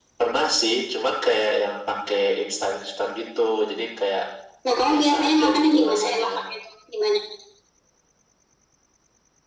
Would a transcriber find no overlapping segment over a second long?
No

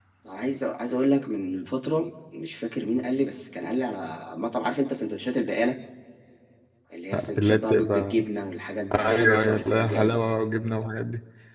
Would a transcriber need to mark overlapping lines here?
Yes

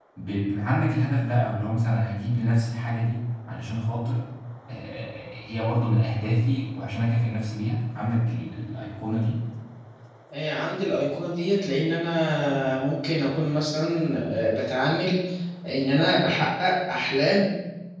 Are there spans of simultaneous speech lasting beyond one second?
No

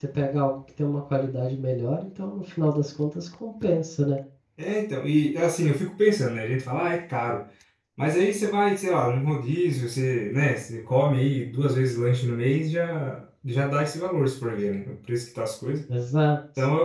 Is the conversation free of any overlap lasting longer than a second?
Yes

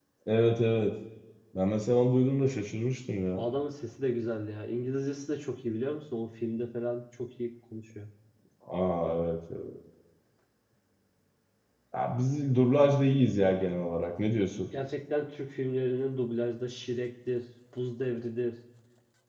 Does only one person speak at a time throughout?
Yes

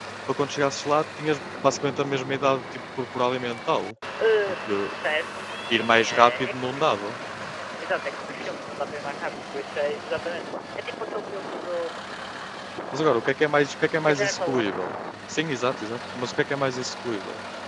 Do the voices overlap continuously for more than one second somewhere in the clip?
Yes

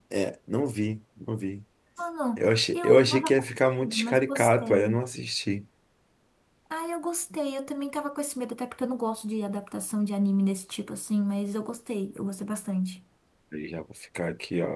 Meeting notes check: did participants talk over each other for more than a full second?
Yes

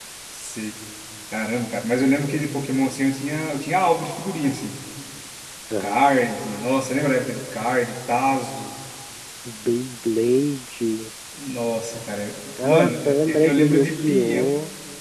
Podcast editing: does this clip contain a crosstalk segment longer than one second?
Yes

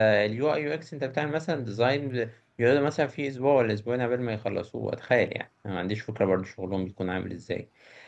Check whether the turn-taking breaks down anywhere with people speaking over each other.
No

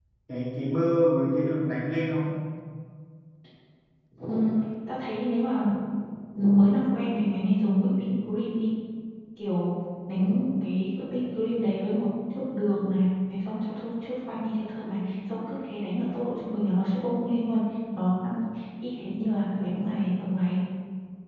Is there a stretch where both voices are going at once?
No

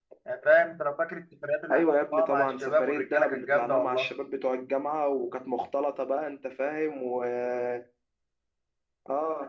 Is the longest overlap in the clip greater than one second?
Yes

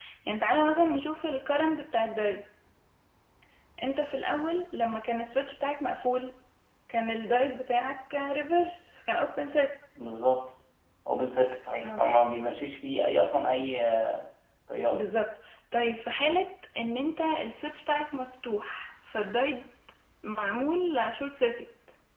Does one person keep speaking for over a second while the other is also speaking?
No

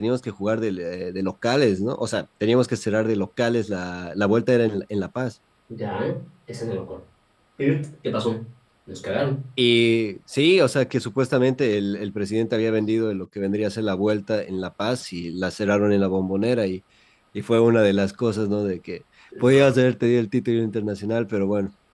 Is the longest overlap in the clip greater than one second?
No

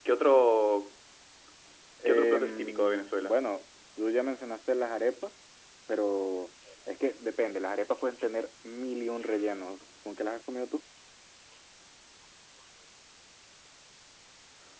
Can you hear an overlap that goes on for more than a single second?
Yes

